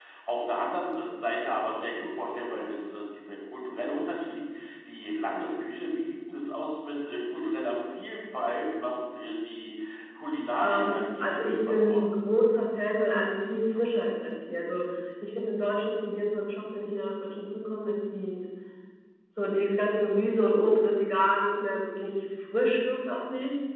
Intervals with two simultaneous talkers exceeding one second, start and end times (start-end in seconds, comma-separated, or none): 10.6-12.0